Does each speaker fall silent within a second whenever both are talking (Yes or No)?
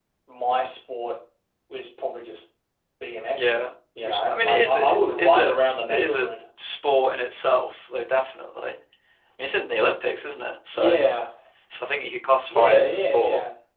No